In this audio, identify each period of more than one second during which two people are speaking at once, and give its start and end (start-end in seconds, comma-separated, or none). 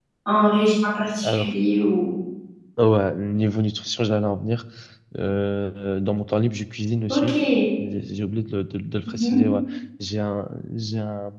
none